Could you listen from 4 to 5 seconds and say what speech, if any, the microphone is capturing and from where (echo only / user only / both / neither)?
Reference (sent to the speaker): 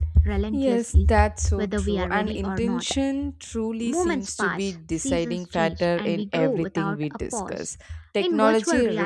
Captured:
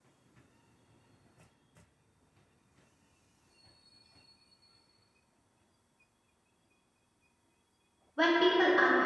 neither